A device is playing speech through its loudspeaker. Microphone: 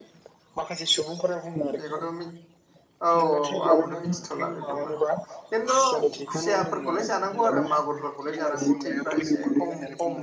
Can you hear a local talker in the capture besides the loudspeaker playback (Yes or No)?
Yes